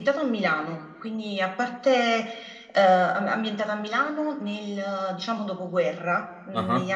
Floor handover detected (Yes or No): No